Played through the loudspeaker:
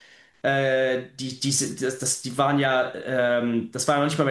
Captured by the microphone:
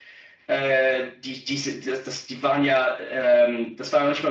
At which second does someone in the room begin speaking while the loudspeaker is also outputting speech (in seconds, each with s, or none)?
none